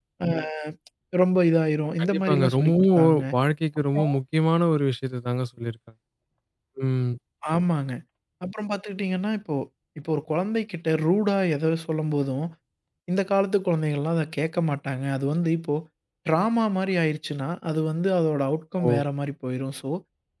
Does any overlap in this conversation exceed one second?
Yes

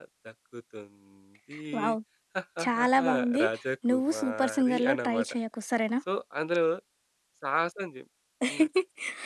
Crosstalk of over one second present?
Yes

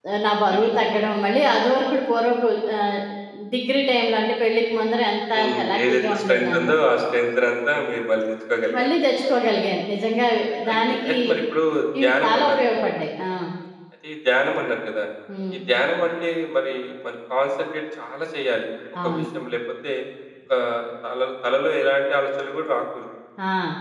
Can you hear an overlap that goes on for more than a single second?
Yes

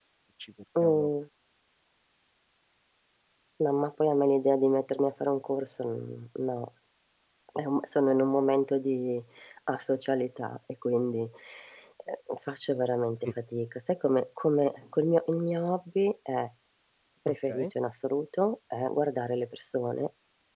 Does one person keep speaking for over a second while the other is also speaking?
No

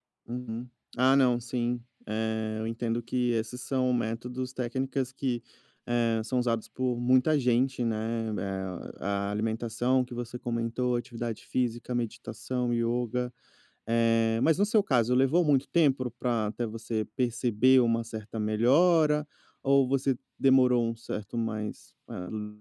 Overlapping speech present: No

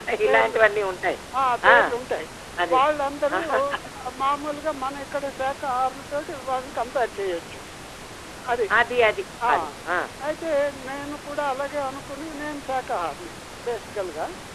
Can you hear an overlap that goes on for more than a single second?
No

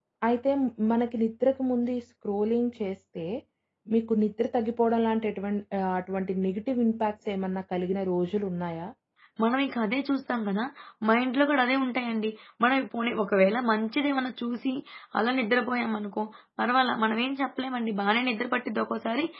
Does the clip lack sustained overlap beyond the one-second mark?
Yes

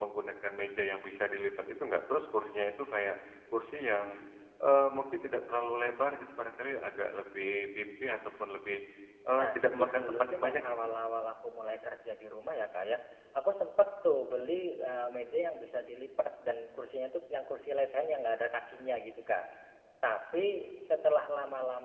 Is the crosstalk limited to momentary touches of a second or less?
No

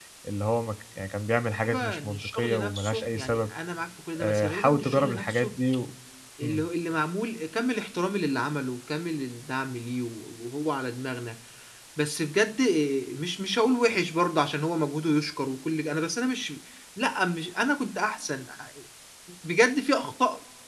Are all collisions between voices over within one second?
No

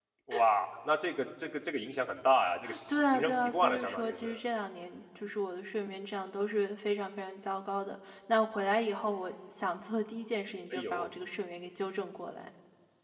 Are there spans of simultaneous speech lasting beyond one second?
Yes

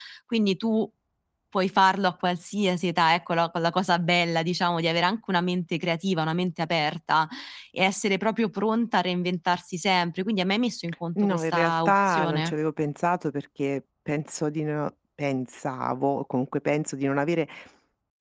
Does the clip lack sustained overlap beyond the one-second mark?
No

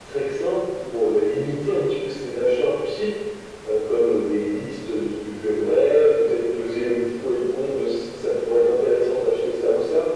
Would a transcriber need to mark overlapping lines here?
No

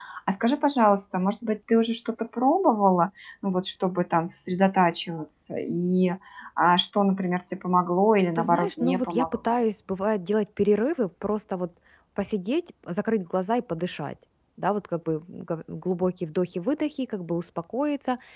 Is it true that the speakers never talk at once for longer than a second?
No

